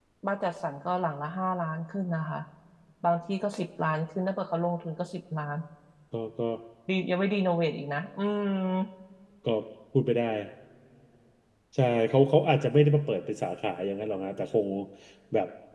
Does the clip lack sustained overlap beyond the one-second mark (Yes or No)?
Yes